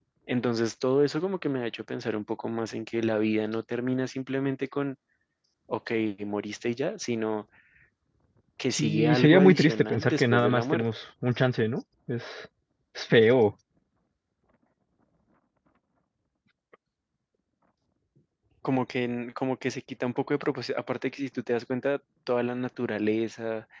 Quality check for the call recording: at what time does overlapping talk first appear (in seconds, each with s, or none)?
8.7 s